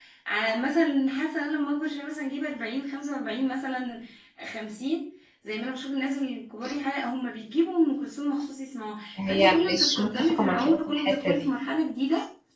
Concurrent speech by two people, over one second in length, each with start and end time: 9.2-11.5

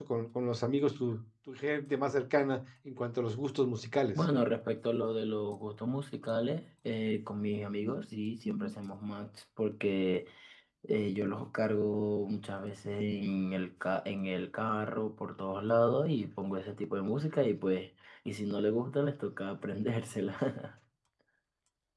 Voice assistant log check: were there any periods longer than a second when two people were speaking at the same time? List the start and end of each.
none

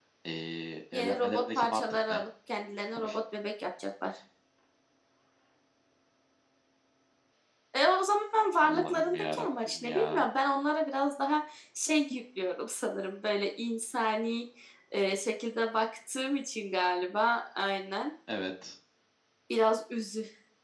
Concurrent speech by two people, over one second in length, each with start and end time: 0.9-2.2, 8.6-10.3

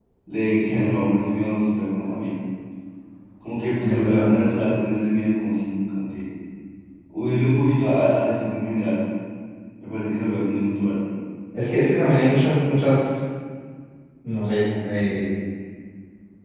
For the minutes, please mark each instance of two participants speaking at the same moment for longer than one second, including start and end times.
none

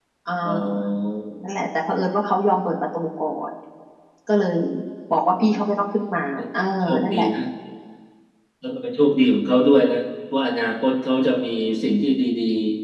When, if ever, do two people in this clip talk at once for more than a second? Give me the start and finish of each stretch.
none

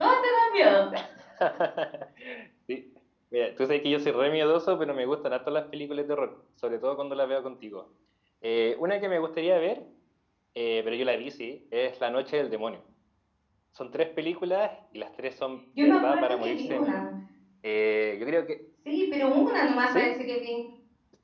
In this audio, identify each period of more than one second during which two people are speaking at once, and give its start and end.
15.8-17.0

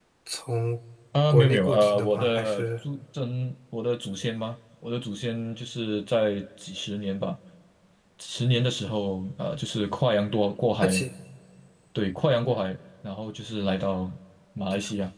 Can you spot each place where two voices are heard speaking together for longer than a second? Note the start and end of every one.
1.3-2.6

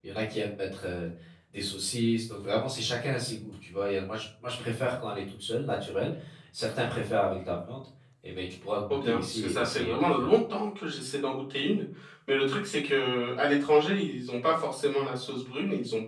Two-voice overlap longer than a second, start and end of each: 8.9-10.3

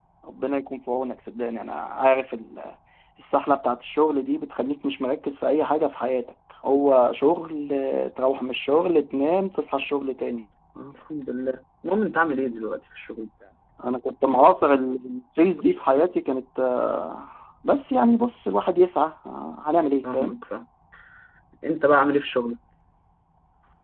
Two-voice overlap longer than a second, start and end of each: none

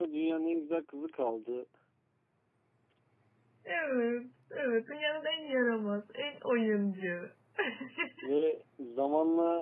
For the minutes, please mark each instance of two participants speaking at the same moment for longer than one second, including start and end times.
none

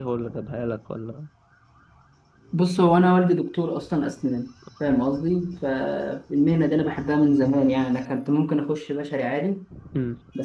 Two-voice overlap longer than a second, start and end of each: none

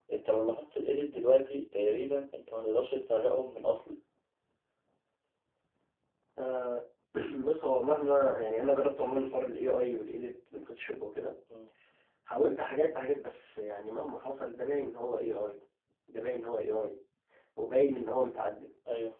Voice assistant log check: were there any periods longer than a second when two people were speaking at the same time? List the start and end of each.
none

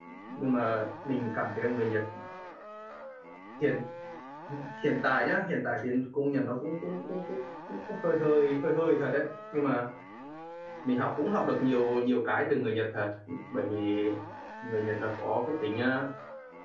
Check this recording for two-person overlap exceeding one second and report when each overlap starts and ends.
none

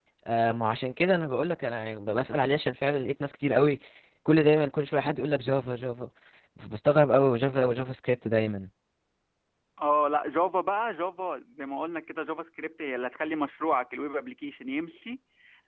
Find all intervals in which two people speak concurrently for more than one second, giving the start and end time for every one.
none

